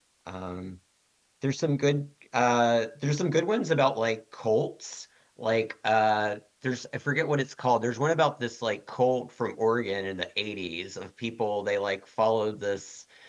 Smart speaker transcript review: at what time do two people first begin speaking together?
none

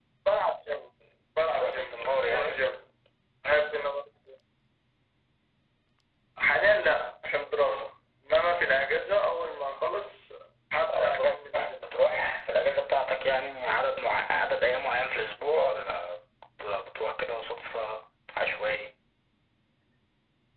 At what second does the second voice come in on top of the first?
1.4 s

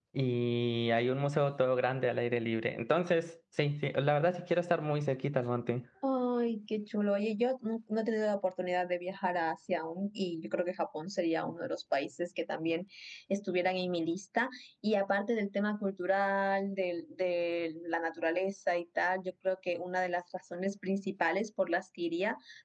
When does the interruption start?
none

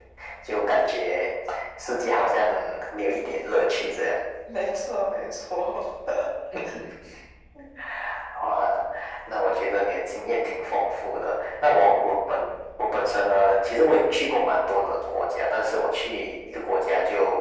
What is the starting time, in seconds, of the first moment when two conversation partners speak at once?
none

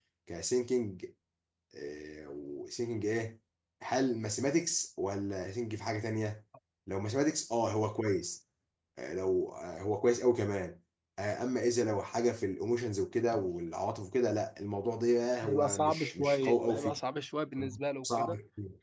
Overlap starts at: 15.4 s

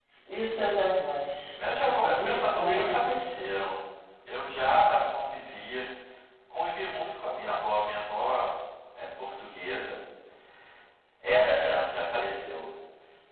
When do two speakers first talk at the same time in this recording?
1.5 s

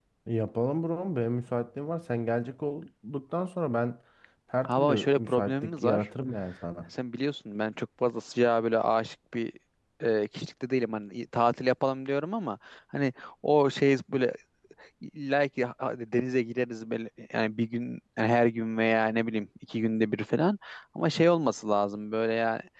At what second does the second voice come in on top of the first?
4.7 s

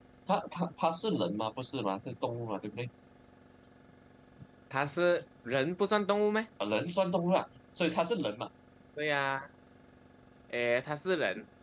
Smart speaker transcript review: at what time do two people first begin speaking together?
none

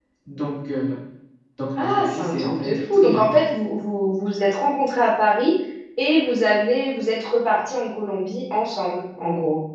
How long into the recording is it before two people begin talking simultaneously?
1.8 s

